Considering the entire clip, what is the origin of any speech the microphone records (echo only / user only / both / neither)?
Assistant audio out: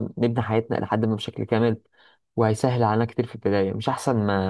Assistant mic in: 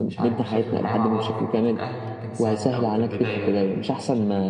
both